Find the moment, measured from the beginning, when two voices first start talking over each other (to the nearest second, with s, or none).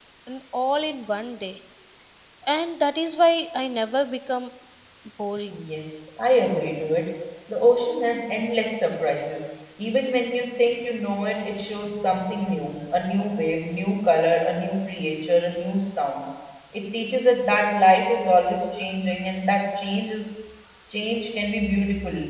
none